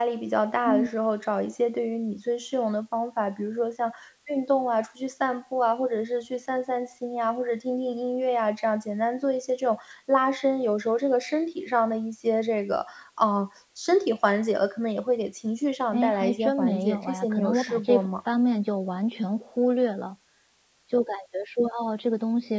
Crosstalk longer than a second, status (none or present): present